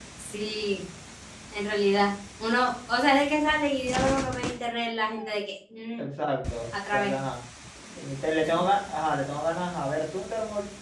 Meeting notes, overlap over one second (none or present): none